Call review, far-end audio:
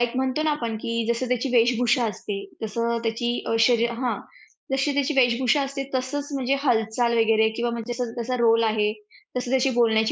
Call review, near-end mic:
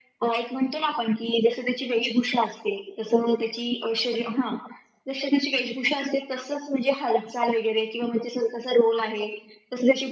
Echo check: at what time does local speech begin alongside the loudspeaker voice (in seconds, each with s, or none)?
none